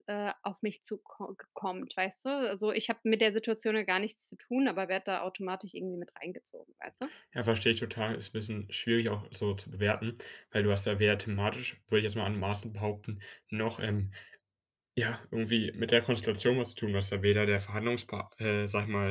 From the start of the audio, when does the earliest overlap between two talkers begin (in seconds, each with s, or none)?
none